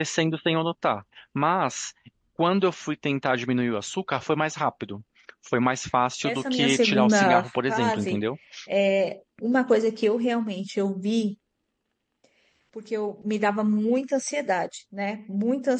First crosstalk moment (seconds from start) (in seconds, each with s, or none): 6.2 s